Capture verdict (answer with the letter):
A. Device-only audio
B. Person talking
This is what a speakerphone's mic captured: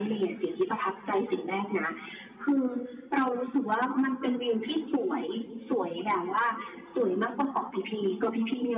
A